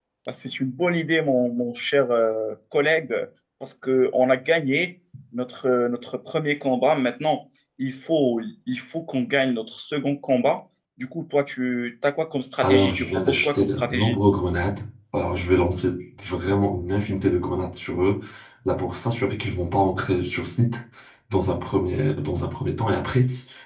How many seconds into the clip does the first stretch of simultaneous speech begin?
12.6 s

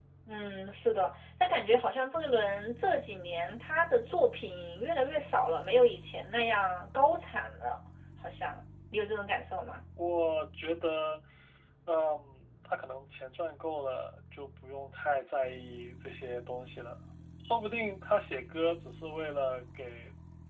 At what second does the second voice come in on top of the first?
none

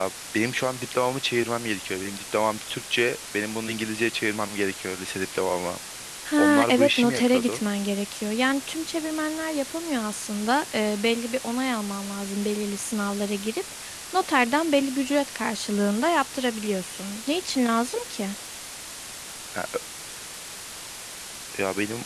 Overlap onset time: 6.4 s

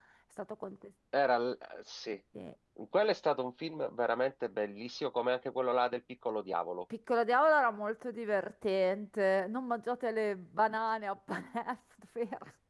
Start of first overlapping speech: none

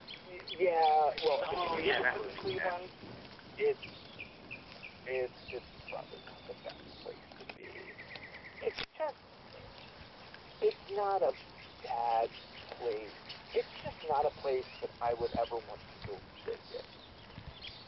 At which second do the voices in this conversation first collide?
1.4 s

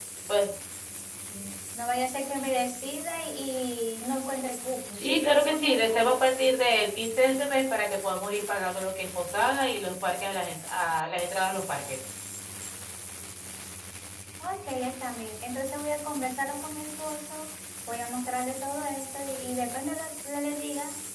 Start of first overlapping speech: 4.9 s

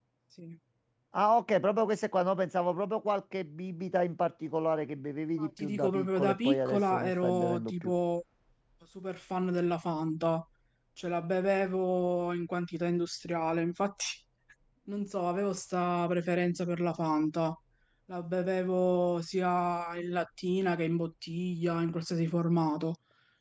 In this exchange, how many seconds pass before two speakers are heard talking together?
5.4 s

